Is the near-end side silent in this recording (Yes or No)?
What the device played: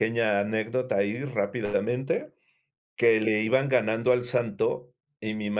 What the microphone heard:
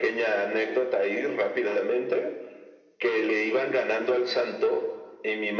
Yes